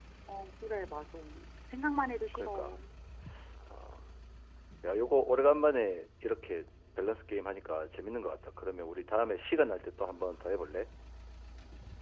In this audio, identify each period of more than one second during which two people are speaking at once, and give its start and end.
none

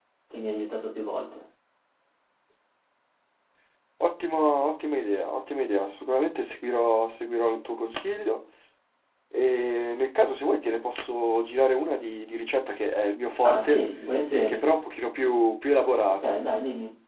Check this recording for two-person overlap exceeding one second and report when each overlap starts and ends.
none

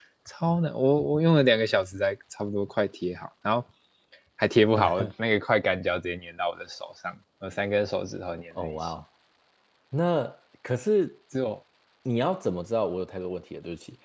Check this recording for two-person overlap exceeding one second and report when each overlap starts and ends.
none

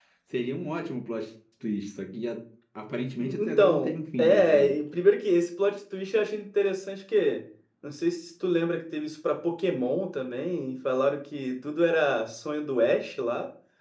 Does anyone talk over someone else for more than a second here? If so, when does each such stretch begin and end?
3.2-4.7

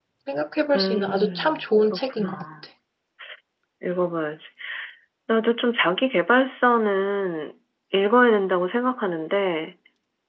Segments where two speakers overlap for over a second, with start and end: 0.7-2.4

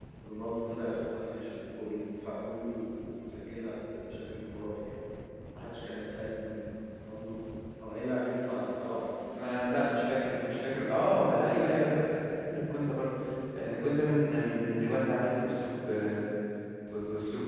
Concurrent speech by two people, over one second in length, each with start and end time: none

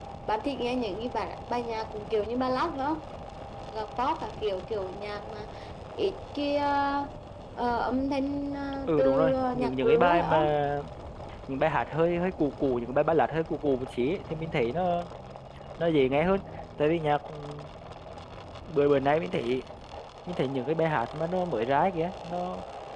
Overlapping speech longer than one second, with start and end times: 8.9-10.4

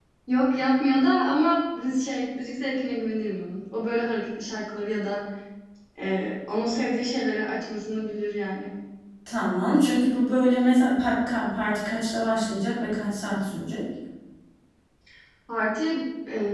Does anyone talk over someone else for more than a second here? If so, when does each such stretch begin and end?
none

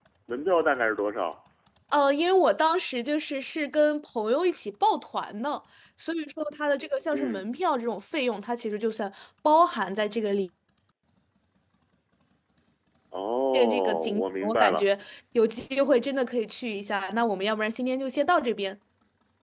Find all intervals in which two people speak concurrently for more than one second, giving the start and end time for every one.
13.5-14.8

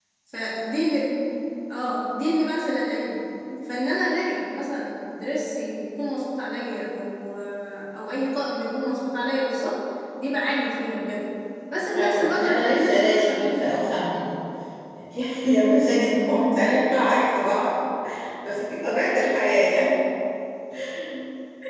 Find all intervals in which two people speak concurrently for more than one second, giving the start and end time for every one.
11.9-13.9

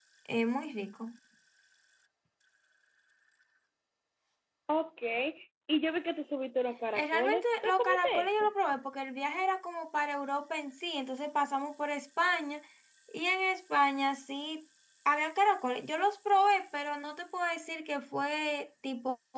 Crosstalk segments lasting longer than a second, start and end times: 6.9-8.5

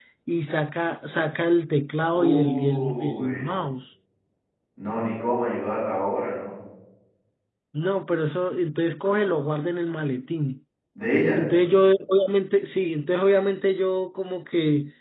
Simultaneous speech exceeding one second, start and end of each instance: 2.1-3.5

